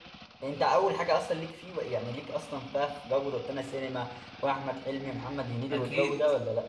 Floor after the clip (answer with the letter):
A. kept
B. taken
B